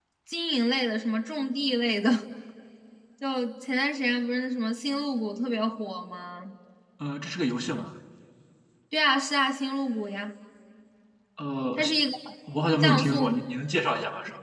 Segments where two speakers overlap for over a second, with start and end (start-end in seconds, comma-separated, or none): none